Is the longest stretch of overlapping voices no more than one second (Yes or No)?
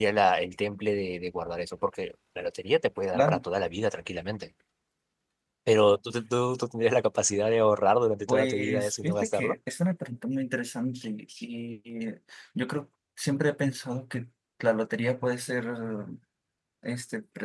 No